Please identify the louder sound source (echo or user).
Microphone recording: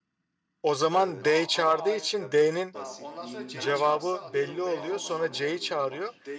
user